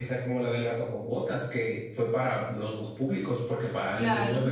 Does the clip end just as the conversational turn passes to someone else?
No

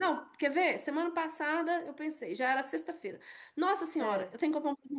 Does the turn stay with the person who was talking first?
Yes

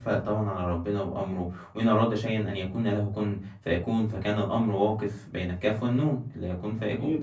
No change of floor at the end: Yes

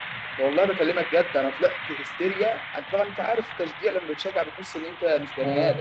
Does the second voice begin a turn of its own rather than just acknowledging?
Yes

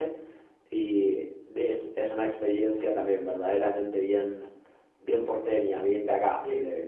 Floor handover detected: No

